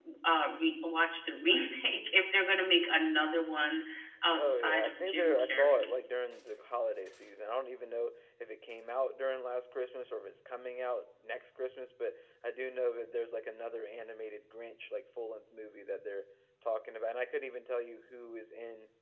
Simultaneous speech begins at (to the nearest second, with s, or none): 4 s